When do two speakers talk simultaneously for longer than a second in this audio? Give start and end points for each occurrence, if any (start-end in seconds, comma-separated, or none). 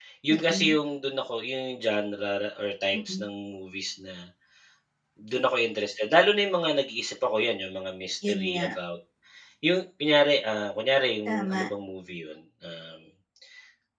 none